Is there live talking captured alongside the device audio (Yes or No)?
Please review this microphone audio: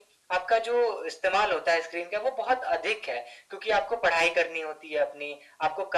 No